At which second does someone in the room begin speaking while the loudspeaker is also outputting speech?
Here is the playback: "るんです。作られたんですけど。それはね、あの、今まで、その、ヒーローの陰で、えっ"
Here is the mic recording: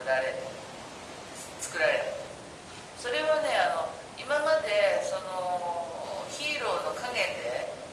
none

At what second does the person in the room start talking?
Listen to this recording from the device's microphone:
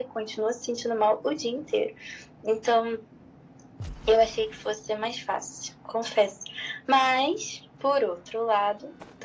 none

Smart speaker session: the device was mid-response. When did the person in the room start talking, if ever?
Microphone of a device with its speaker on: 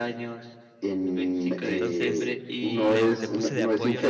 1.6 s

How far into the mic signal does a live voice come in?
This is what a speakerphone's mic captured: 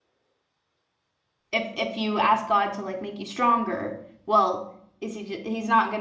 1.5 s

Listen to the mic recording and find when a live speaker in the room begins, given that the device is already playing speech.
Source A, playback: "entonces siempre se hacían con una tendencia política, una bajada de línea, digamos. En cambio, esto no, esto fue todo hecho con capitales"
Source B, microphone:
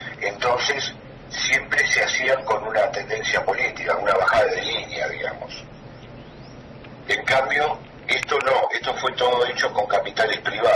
none

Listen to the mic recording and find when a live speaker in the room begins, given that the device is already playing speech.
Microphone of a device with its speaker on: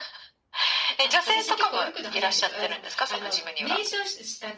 1.0 s

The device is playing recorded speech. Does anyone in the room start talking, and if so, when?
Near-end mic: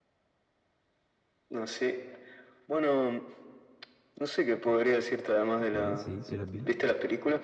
5.6 s

